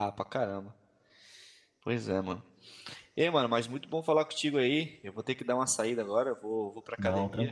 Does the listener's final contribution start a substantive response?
No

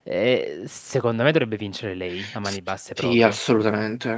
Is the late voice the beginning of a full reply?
Yes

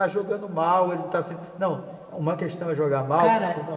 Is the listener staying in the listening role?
No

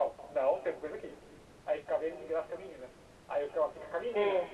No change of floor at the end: Yes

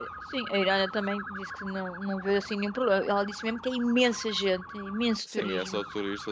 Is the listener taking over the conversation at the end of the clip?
Yes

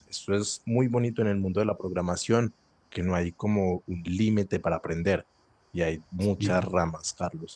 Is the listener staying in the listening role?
Yes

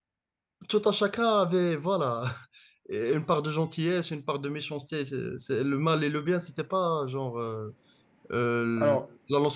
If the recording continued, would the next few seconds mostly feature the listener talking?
No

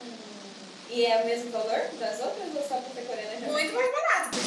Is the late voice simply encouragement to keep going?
No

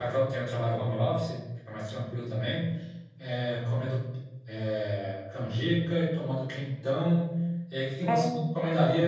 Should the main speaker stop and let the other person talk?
No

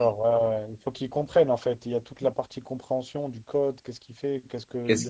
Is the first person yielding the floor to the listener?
No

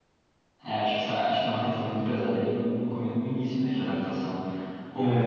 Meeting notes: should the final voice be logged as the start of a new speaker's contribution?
No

